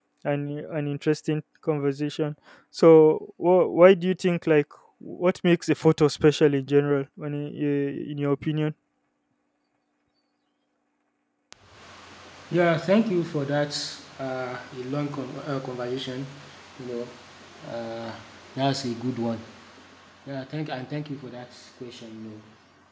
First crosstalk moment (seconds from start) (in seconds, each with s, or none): none